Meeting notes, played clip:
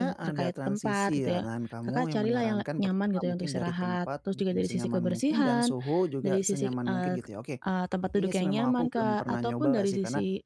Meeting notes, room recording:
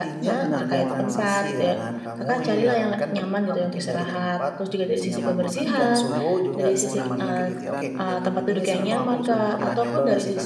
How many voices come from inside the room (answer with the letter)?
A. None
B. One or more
B